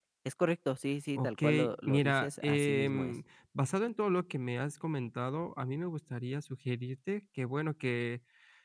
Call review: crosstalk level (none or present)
present